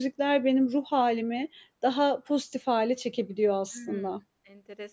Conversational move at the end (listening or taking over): taking over